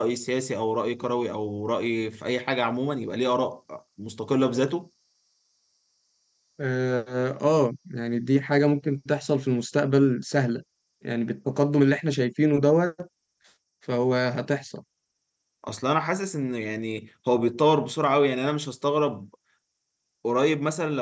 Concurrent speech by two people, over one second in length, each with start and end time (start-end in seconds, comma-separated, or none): none